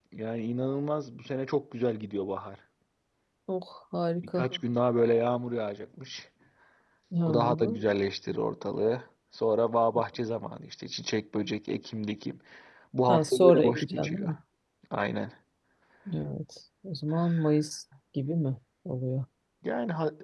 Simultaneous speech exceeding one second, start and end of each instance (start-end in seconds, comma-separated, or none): 13.1-14.3